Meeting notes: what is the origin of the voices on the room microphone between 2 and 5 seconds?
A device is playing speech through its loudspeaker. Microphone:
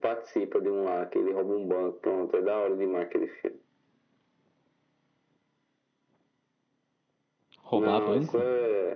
echo only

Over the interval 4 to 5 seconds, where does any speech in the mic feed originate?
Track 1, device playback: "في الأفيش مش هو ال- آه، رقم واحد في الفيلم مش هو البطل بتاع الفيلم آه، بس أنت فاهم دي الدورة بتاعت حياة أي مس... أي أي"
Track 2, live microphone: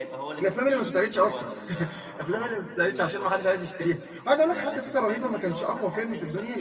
both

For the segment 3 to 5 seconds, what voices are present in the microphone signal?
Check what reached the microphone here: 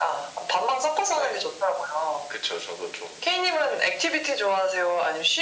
echo only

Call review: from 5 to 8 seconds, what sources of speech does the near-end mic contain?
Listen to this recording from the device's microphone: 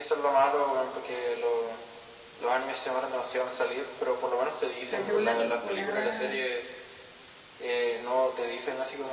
both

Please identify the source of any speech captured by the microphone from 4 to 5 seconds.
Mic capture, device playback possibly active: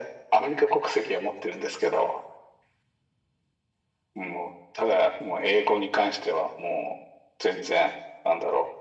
echo only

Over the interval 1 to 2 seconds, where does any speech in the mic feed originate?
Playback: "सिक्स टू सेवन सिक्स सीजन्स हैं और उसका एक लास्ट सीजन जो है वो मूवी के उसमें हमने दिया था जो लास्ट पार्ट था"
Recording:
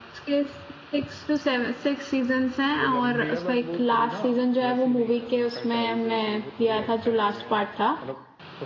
echo only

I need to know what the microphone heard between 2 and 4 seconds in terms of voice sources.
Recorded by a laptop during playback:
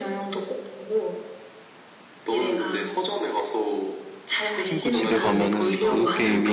echo only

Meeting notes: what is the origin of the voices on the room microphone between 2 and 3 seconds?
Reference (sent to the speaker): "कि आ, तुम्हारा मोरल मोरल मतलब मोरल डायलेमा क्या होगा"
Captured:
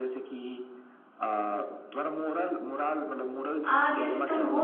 echo only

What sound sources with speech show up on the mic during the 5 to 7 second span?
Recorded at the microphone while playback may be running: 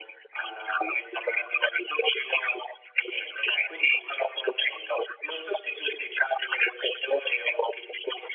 echo only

